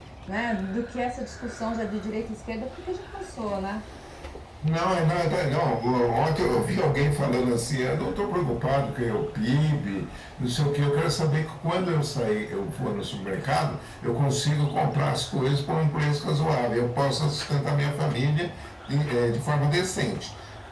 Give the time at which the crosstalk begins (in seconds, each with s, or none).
none